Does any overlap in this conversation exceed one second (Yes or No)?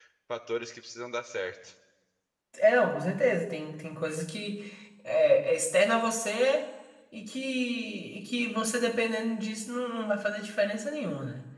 No